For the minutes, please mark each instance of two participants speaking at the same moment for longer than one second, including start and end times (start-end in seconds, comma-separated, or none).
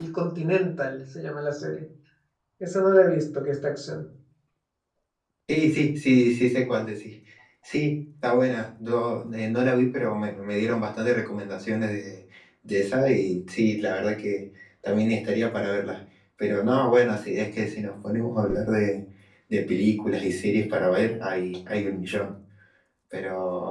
none